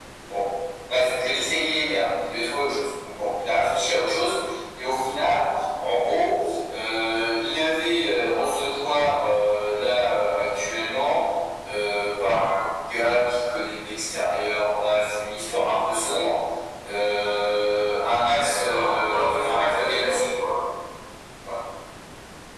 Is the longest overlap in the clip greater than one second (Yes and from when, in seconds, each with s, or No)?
Yes, from 18.2 s